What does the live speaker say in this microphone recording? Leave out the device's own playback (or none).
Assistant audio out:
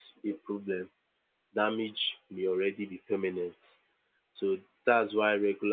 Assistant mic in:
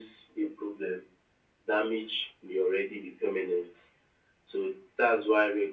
none